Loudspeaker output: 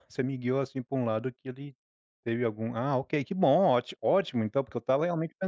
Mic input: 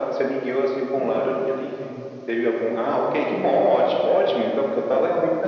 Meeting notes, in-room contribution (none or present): present